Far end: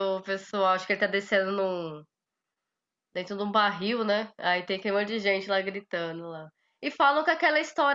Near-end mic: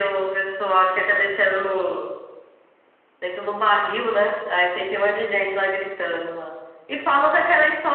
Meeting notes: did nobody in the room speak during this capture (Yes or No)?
Yes